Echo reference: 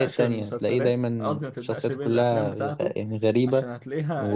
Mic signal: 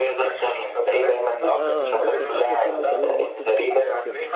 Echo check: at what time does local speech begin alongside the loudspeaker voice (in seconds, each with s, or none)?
1.4 s